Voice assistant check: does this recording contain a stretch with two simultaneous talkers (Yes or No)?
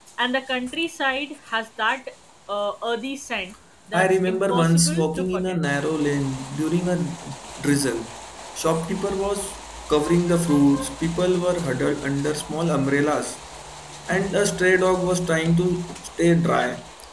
Yes